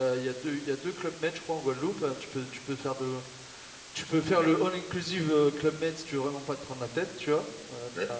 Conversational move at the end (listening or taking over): listening